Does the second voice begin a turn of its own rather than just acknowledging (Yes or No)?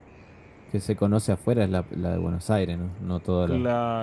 Yes